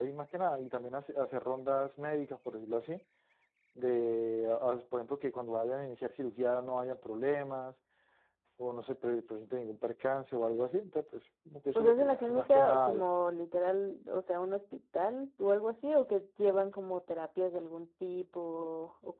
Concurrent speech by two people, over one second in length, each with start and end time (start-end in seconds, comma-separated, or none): 11.7-13.1